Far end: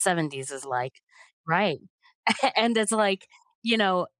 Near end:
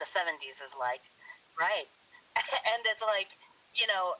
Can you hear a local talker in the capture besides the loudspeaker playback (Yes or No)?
No